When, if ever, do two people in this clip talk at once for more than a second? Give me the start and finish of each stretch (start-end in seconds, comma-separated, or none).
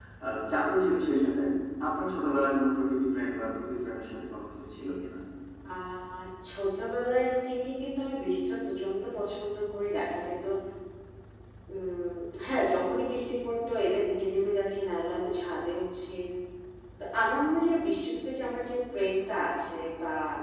none